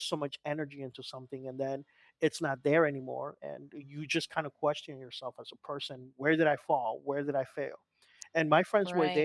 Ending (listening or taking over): listening